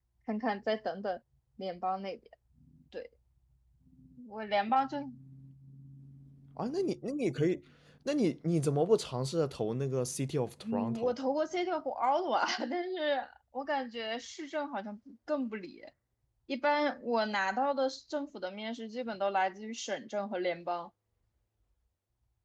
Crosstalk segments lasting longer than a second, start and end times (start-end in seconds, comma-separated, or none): none